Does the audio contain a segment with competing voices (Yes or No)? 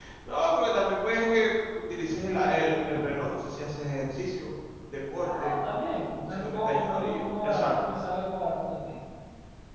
Yes